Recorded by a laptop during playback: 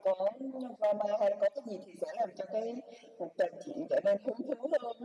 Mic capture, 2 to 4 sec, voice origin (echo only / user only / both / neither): echo only